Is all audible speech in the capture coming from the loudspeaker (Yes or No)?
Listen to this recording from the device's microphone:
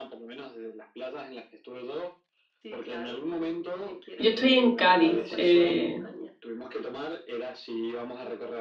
No